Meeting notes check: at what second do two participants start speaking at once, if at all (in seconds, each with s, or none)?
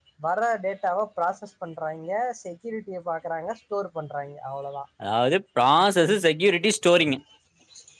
none